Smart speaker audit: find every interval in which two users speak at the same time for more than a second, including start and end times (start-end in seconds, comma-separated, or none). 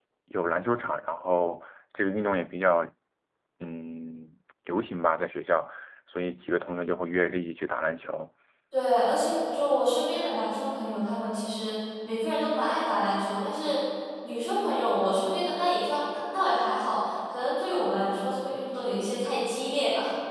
none